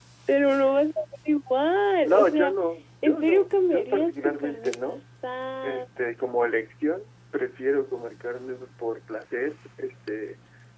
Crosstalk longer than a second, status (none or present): present